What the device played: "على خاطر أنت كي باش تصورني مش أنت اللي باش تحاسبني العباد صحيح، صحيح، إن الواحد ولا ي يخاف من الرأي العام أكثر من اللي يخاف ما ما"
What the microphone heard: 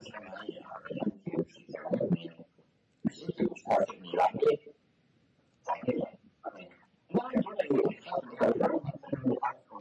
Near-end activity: none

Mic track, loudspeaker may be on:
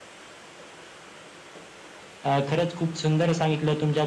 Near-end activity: present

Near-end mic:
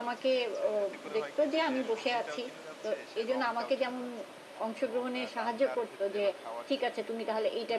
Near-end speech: present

